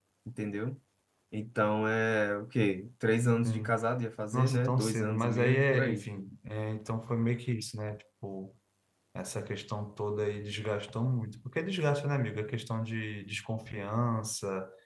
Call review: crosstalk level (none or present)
present